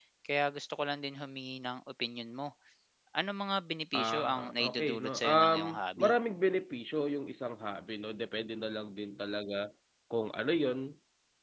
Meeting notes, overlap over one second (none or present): present